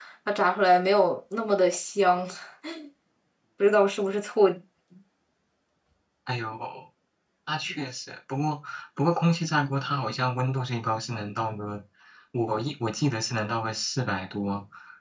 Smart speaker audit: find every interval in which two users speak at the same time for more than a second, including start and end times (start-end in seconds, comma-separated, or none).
none